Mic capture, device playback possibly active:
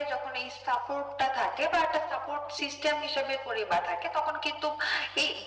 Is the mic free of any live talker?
Yes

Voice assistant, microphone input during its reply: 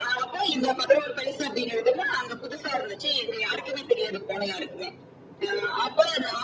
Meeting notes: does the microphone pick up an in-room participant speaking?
No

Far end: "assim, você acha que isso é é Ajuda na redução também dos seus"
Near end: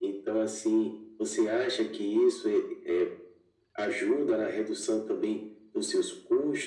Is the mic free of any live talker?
Yes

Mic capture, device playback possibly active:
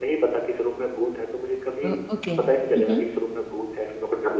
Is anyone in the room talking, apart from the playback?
Yes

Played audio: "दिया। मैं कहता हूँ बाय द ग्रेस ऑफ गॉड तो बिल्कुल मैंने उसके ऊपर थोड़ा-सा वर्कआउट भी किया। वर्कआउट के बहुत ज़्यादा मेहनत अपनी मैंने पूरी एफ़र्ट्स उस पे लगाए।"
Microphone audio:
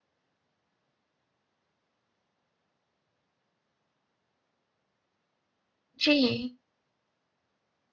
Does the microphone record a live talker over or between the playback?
Yes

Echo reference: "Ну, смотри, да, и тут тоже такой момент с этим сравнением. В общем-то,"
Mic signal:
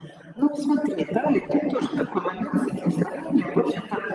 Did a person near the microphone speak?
No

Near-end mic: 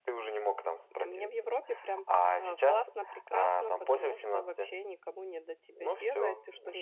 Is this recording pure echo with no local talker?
No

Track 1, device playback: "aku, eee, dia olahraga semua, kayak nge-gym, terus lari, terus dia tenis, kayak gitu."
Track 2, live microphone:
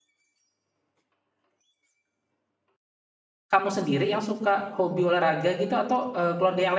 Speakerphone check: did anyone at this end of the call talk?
Yes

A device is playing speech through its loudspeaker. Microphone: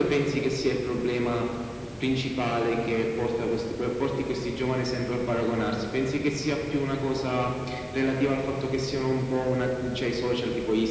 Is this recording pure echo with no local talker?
Yes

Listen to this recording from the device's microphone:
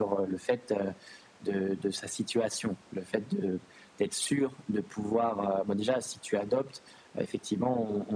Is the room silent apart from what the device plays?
Yes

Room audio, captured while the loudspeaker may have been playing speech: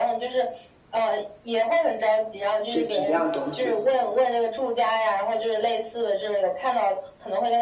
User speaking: Yes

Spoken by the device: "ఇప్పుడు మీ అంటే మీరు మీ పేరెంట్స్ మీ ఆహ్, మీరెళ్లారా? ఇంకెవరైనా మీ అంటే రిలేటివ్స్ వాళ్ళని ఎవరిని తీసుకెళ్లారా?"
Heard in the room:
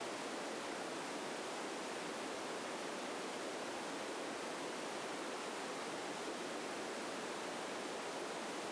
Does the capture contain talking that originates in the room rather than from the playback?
No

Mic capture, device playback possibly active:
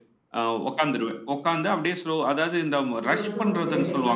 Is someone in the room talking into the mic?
Yes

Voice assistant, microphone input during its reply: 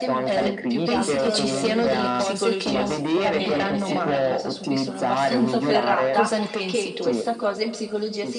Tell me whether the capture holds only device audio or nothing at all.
No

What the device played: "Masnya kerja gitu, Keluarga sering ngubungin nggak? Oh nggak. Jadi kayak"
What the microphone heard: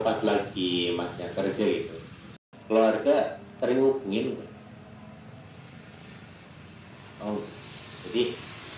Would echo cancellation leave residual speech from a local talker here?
No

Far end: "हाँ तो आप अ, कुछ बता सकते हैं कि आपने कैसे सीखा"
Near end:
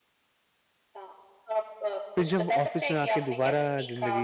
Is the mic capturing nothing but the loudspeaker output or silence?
No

